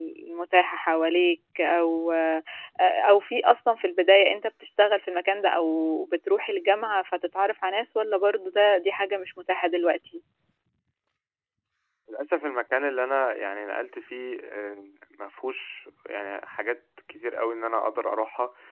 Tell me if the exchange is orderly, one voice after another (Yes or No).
Yes